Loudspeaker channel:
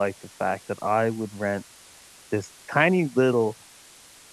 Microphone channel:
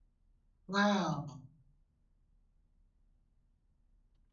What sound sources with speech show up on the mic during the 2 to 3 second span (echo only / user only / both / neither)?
neither